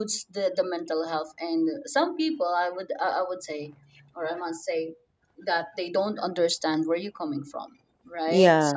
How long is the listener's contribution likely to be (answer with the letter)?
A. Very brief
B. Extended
A